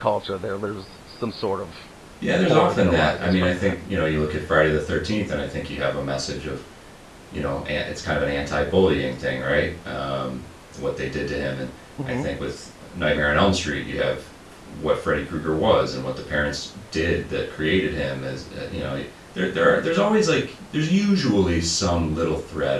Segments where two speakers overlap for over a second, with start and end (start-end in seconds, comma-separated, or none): 2.4-3.7